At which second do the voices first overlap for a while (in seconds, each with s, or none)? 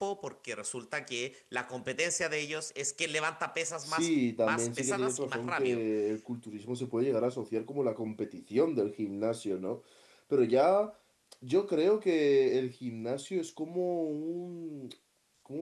3.8 s